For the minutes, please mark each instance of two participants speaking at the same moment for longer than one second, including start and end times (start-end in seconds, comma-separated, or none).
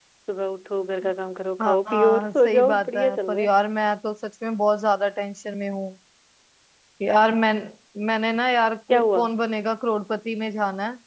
1.6-3.5